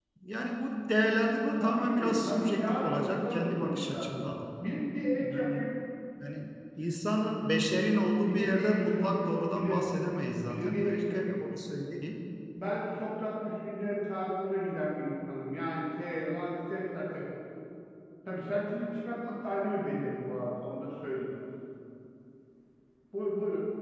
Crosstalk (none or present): present